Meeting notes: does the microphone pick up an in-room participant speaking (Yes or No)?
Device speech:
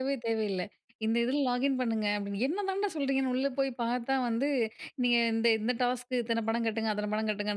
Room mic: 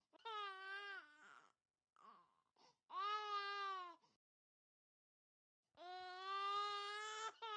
No